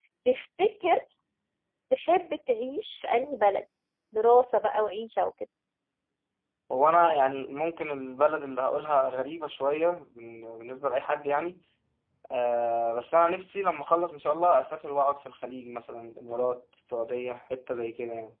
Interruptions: none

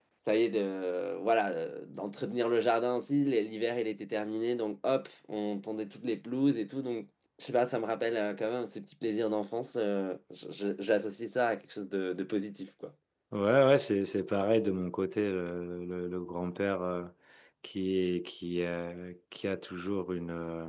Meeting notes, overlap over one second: none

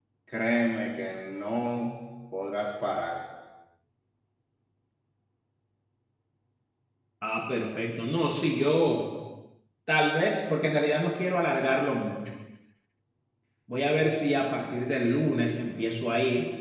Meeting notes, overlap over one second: none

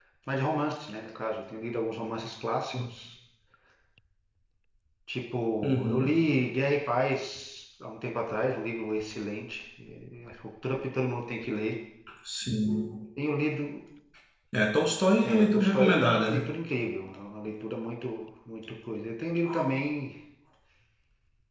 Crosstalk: present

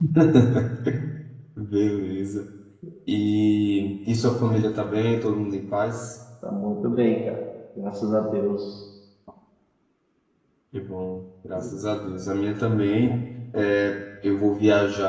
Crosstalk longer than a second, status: none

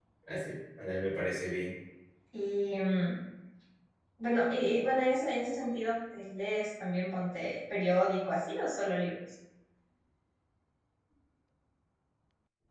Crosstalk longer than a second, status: none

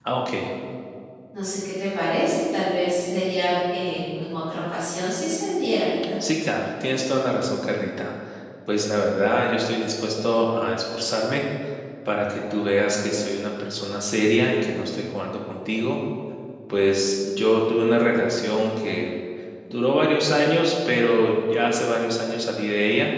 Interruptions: none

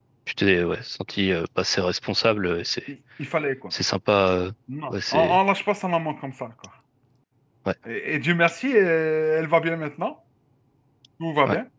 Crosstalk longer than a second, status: none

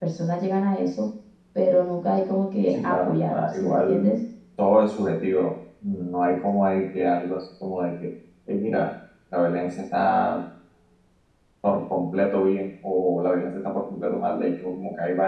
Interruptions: present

